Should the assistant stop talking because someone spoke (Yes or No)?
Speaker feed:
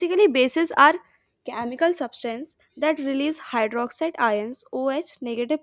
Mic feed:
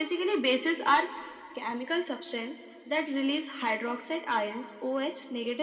No